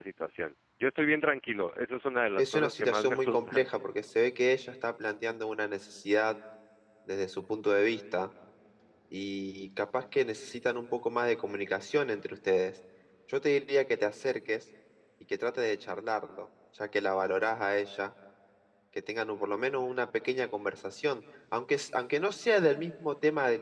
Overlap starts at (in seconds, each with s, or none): 2.4 s